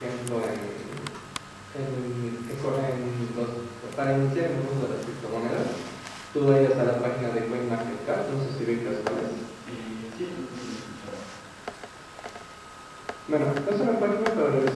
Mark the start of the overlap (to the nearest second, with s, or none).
none